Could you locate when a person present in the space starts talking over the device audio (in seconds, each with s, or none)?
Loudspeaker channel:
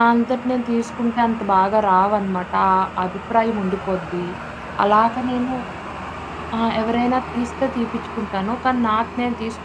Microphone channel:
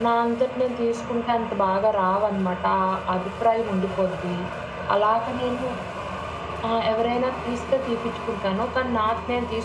none